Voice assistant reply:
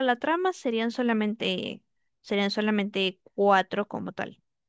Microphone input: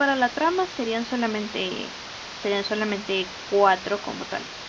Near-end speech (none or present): none